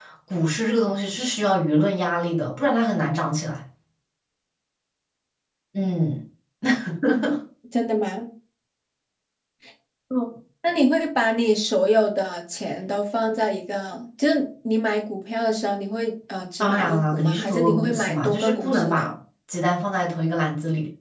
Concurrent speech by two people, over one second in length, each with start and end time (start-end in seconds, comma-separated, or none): 16.6-19.1